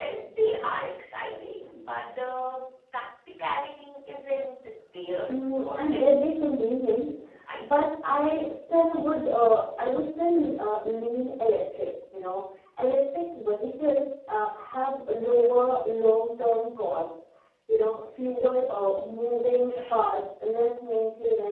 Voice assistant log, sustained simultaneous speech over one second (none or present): present